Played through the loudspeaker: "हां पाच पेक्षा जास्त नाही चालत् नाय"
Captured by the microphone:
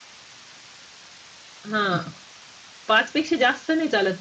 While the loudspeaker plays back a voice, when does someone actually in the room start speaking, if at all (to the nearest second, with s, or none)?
none